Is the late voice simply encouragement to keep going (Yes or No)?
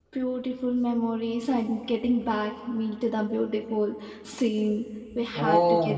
No